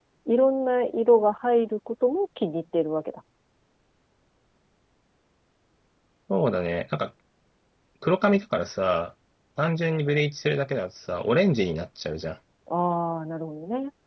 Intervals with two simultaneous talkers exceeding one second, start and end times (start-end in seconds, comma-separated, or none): none